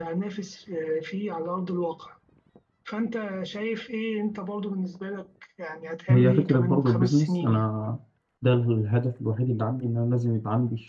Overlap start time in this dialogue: 6.1 s

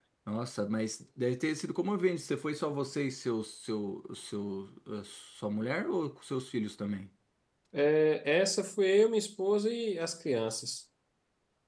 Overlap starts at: none

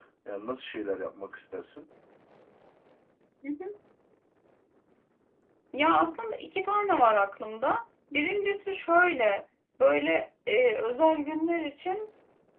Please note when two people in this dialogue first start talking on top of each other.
none

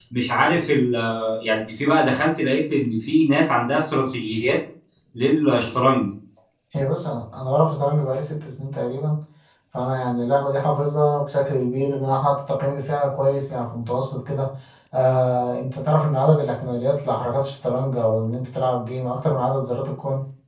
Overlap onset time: none

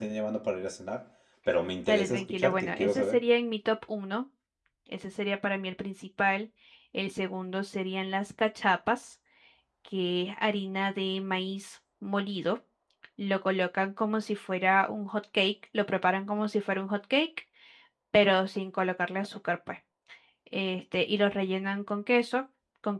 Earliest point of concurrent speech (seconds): 1.9 s

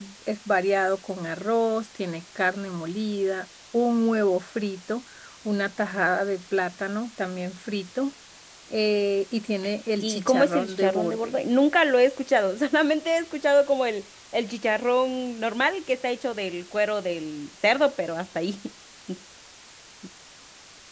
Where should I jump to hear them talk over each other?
10.0 s

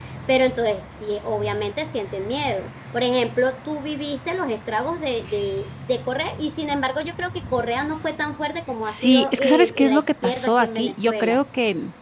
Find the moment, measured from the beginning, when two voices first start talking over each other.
8.9 s

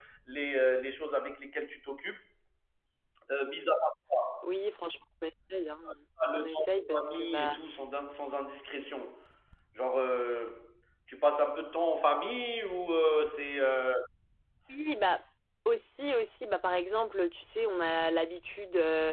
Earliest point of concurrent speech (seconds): 6.3 s

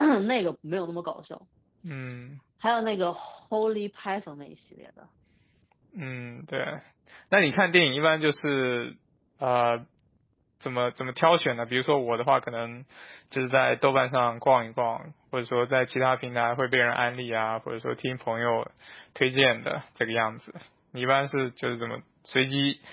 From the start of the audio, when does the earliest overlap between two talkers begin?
none

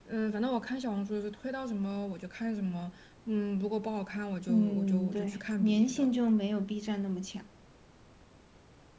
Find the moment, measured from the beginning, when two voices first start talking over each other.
4.5 s

